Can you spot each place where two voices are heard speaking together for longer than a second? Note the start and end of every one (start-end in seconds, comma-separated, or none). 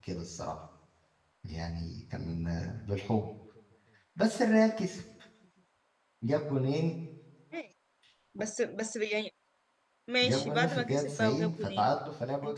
10.2-11.9